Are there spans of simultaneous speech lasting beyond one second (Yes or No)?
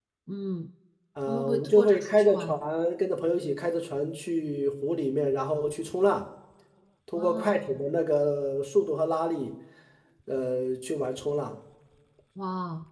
Yes